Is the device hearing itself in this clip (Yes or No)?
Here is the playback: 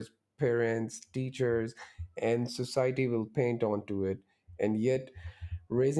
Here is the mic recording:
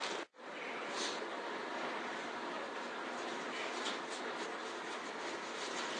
No